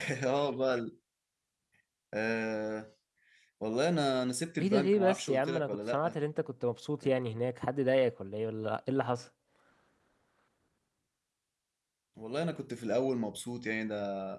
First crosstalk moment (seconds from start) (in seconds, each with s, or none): 4.6 s